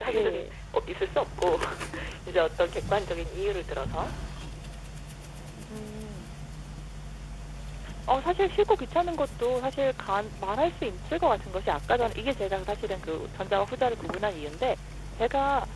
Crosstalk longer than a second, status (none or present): none